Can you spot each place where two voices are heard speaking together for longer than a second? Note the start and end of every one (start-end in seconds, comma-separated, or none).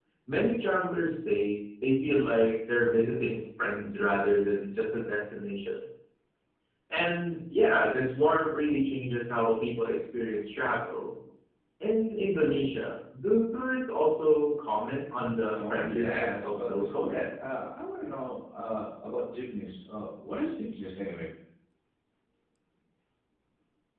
15.5-17.3